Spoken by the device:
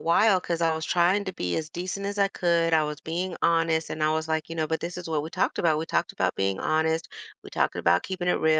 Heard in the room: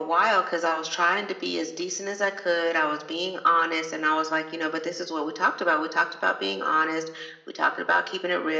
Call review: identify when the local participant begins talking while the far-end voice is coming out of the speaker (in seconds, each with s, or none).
none